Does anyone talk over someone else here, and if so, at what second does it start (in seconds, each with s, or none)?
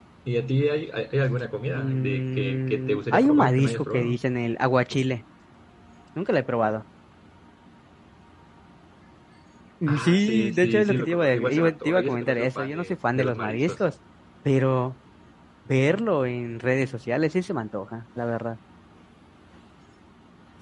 1.7 s